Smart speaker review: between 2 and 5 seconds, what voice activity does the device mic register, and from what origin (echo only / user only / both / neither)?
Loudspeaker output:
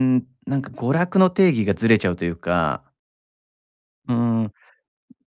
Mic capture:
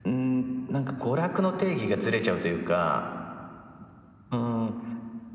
echo only